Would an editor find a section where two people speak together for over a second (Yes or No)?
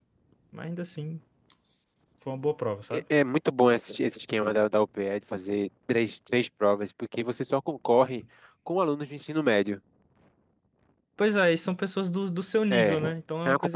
No